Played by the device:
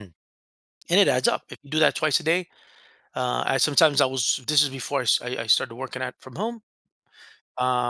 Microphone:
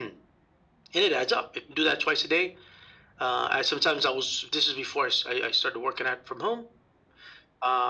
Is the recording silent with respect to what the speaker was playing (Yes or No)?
No